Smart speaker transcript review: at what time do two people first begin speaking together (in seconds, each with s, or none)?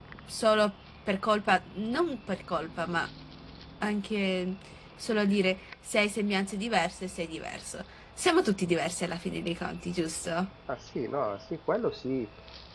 none